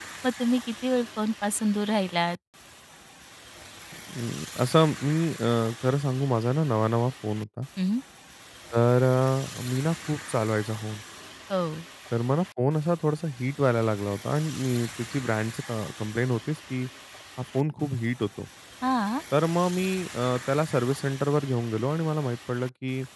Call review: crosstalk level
none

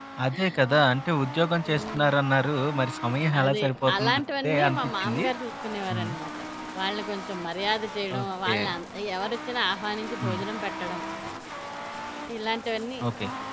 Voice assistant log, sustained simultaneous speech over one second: present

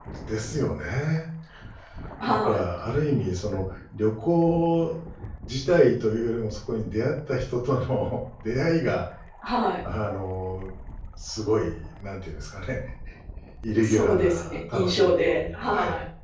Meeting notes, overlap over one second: present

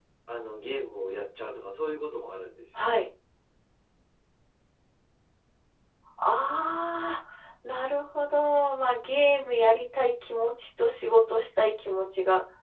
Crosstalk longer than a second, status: none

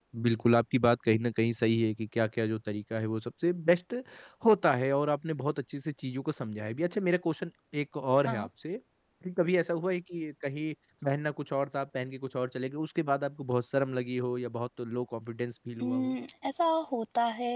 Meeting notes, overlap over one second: none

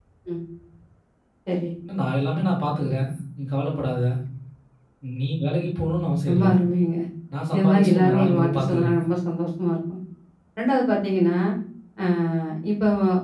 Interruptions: present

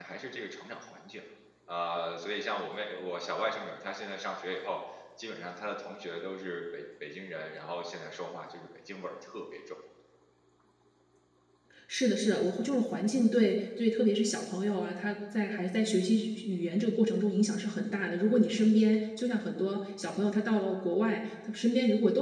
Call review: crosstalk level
none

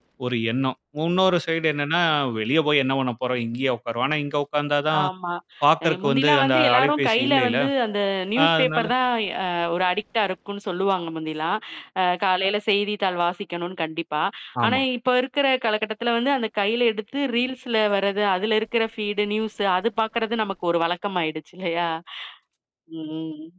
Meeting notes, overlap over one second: present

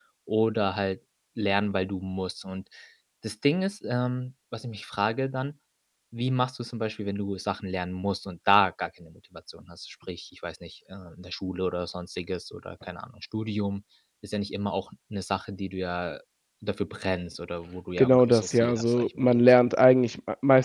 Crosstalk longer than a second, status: present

